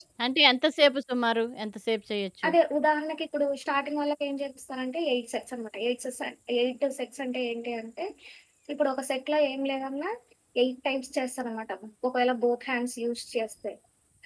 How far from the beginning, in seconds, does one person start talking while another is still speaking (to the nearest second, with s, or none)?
none